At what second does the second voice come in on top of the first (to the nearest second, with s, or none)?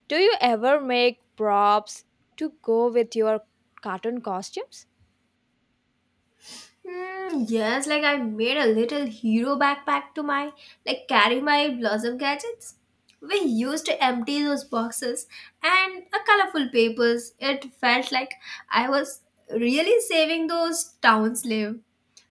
none